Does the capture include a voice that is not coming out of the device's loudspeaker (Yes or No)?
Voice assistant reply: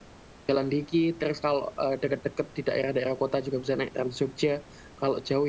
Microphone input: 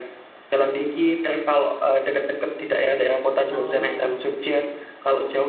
Yes